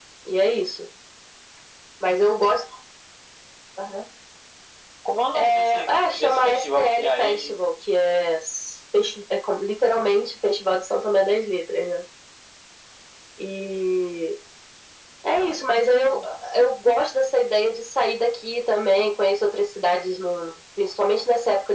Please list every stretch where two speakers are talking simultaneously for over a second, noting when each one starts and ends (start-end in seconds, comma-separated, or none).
5.3-7.6